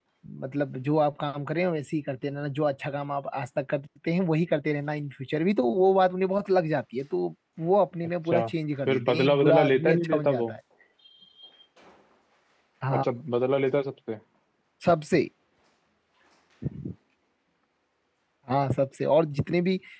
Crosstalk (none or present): present